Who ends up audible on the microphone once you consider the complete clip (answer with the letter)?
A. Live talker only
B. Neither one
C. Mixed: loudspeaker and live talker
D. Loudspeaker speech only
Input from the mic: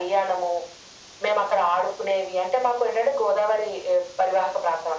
D